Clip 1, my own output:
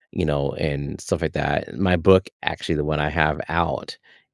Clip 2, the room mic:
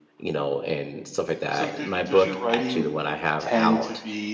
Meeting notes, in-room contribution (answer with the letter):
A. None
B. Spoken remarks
B